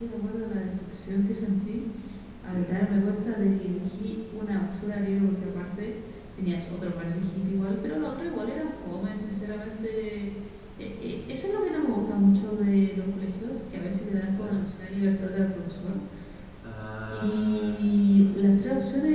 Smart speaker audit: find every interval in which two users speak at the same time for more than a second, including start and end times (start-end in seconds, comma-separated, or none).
17.1-18.5